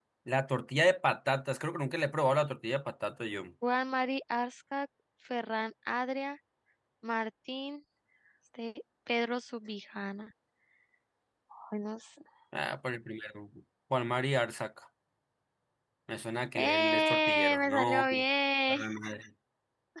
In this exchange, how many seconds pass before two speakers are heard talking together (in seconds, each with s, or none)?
16.6 s